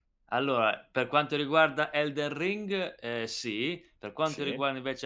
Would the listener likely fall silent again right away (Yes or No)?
Yes